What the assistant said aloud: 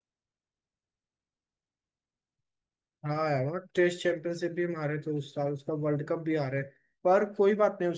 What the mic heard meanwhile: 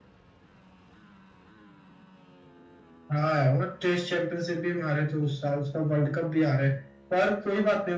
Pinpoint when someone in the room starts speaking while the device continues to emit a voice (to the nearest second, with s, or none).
none